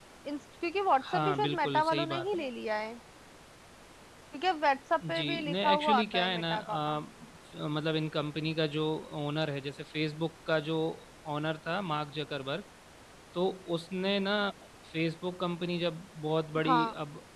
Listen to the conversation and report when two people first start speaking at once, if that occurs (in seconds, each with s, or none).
1.1 s